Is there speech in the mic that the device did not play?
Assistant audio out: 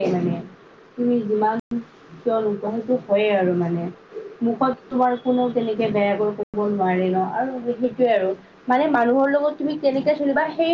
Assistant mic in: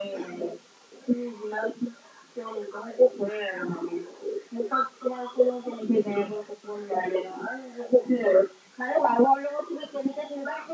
No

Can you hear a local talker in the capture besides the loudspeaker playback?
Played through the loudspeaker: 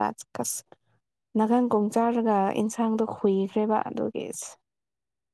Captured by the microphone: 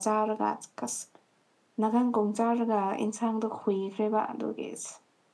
No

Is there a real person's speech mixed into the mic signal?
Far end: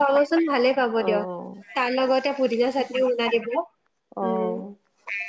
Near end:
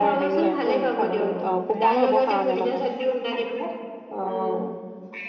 Yes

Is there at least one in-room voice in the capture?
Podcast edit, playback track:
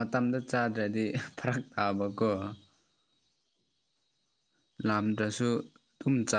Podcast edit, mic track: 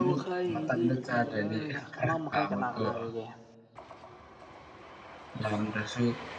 Yes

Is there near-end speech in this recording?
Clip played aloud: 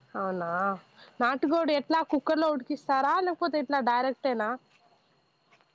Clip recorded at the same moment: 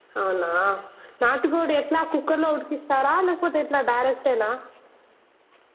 No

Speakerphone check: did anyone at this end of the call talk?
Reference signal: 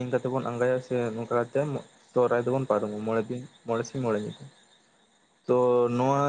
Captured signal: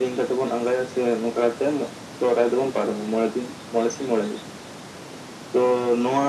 No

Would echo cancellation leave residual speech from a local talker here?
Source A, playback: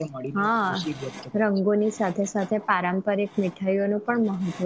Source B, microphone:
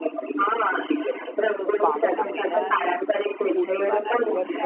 Yes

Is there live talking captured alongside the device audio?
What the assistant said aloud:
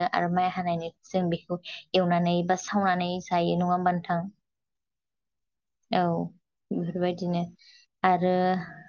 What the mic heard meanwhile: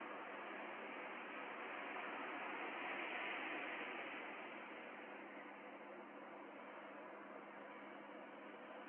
No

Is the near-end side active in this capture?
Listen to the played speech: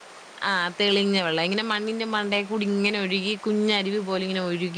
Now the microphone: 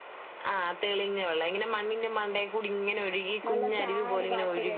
Yes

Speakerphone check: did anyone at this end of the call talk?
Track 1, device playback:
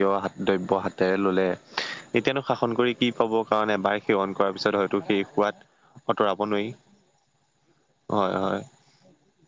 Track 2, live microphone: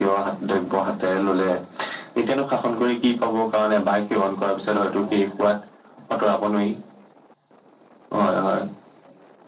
No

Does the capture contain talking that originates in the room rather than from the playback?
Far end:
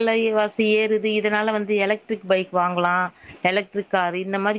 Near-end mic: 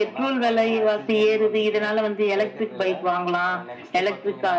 Yes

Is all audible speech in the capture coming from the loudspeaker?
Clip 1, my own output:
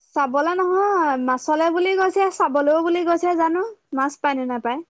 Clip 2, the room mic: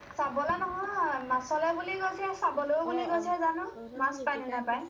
No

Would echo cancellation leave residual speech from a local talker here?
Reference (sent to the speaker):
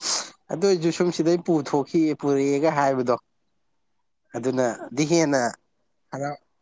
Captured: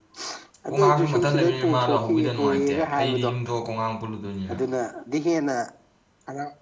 Yes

